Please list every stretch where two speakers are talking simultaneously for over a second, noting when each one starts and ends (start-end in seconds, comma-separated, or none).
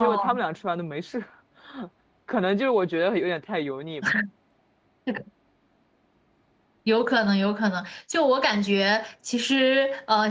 none